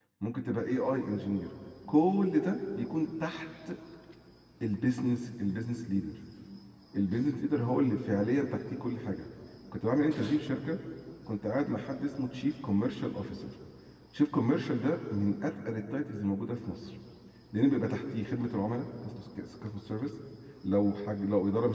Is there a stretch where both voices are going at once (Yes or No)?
No